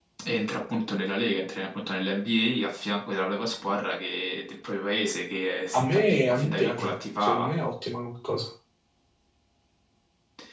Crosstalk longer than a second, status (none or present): present